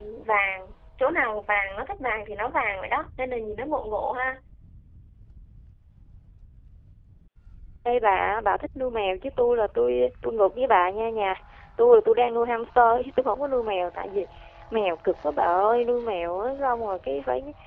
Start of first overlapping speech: none

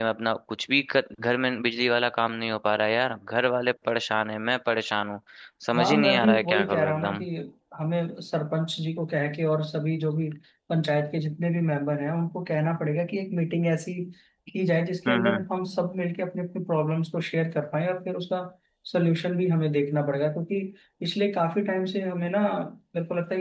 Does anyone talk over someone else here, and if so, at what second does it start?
5.8 s

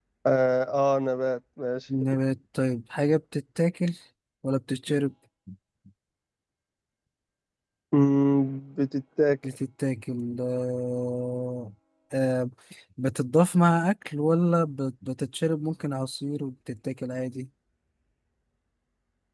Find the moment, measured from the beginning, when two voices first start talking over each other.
none

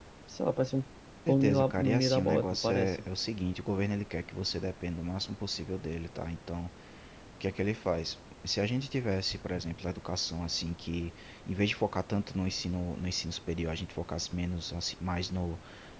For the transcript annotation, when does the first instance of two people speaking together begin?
1.3 s

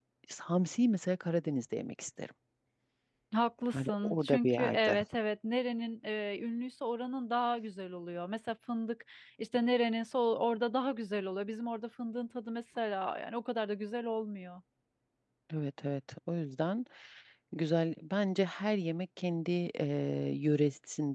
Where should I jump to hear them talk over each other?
3.7 s

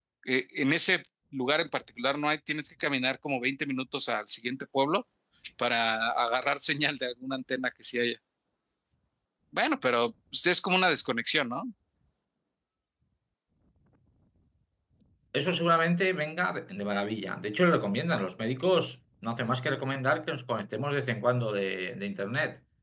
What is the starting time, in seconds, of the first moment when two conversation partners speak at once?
none

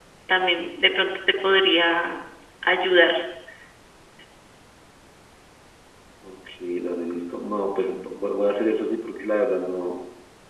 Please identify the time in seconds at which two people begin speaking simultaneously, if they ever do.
none

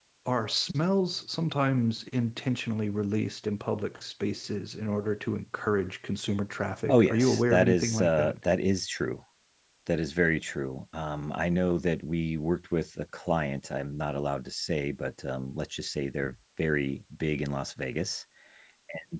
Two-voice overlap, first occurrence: 6.9 s

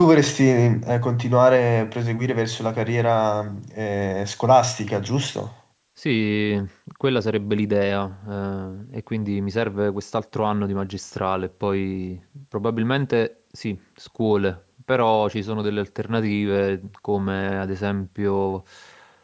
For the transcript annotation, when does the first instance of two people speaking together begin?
none

